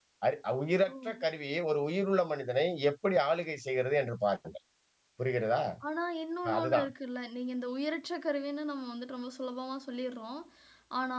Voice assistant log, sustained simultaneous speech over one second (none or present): none